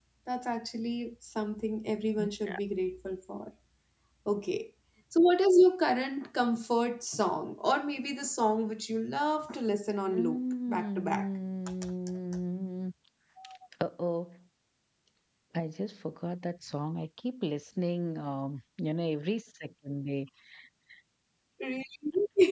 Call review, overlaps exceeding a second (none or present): present